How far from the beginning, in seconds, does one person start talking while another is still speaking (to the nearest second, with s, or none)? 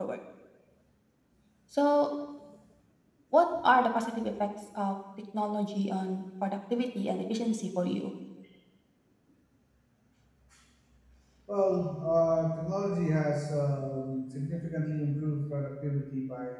none